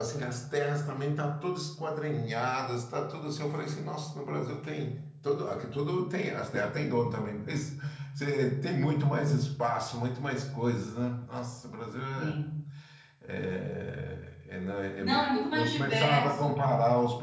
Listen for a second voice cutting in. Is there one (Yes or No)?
Yes